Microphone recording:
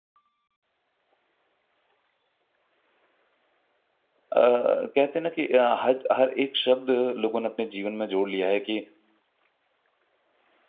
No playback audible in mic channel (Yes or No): Yes